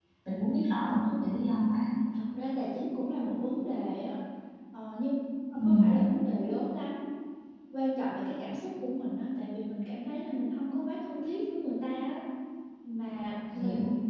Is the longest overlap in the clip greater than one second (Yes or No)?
No